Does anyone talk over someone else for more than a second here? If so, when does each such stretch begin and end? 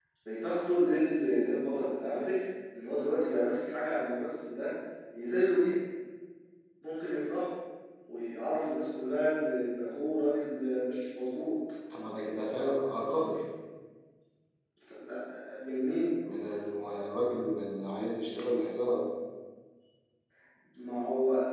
none

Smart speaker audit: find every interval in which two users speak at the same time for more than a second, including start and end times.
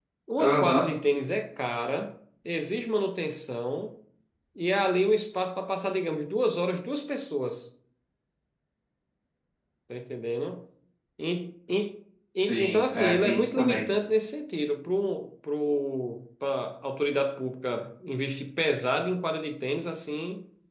12.4-13.8

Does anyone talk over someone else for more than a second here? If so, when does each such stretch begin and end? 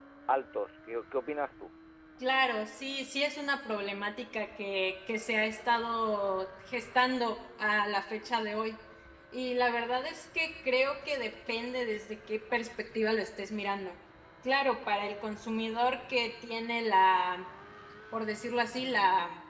none

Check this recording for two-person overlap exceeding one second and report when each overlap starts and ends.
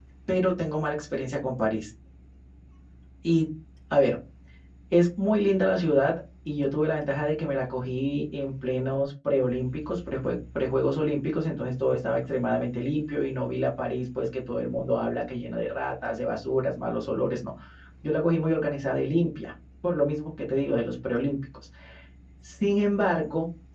none

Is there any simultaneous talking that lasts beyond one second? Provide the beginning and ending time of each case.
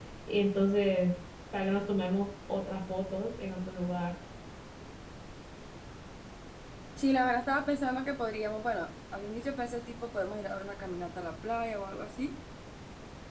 none

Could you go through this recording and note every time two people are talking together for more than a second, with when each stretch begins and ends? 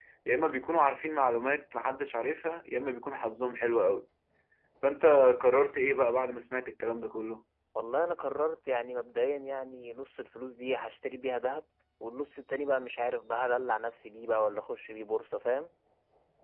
none

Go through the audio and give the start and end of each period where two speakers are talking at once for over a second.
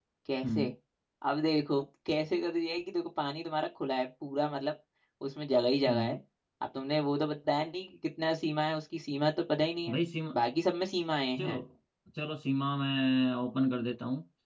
none

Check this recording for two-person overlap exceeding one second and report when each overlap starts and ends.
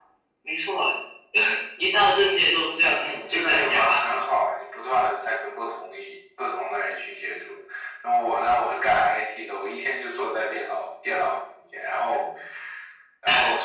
2.8-4.2

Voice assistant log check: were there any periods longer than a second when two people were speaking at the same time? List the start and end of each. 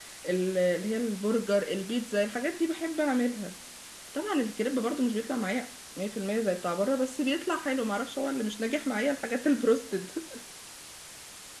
none

